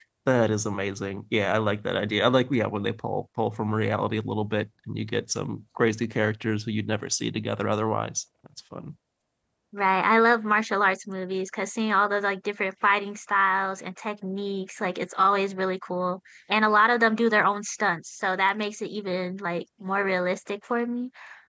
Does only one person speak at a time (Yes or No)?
Yes